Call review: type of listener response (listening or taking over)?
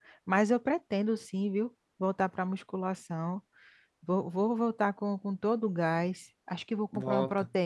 listening